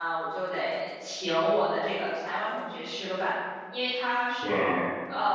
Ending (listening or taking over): listening